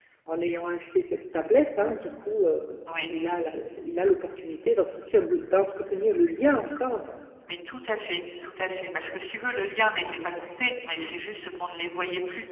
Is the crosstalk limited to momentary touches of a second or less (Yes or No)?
Yes